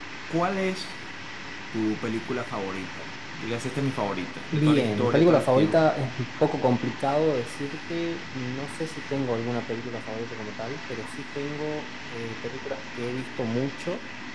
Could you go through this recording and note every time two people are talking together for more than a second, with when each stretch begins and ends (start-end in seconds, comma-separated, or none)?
4.5-5.8